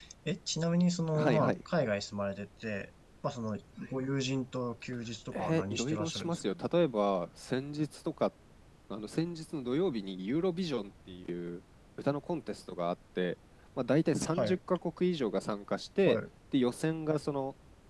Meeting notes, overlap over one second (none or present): present